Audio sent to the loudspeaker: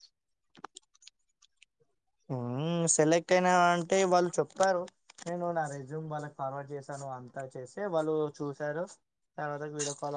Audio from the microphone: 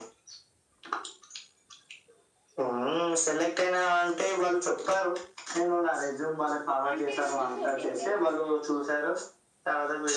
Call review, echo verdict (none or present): present